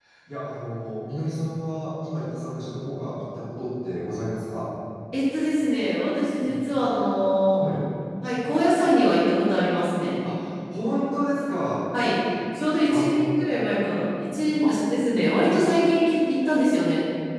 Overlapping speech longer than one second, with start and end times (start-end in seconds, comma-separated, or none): none